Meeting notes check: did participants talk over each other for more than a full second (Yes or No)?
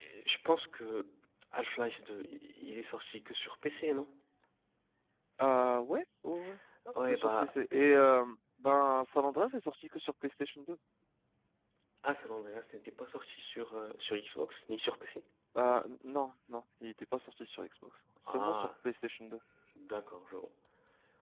No